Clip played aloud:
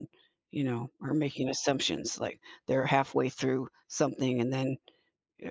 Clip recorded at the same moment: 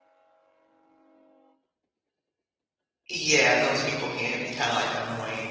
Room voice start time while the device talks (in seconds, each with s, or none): 3.1 s